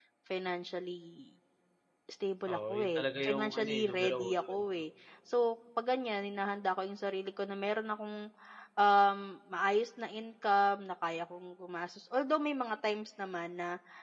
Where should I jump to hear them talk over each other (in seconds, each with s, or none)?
2.5 s